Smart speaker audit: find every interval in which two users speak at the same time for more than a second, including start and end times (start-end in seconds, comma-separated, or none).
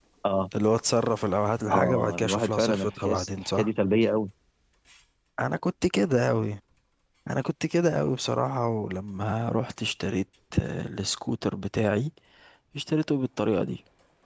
1.7-3.7